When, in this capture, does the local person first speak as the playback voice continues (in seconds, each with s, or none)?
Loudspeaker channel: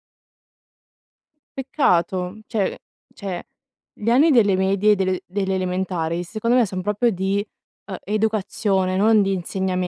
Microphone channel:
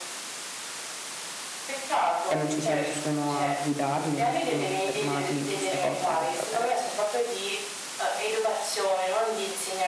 2.2 s